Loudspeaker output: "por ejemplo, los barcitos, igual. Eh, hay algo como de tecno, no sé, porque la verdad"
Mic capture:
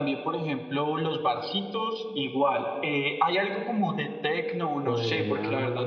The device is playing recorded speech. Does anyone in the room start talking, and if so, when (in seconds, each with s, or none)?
4.8 s